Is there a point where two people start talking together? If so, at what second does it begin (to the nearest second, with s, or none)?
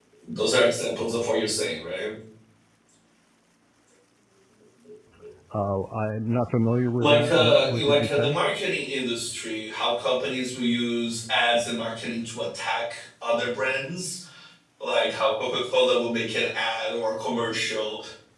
7 s